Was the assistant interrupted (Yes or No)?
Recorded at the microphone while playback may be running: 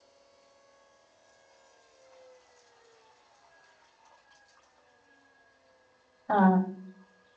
Yes